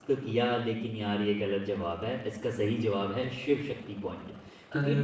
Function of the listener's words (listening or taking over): listening